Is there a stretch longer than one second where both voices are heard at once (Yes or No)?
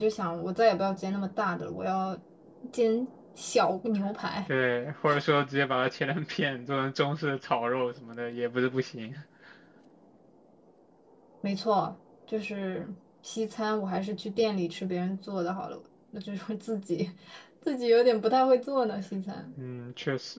No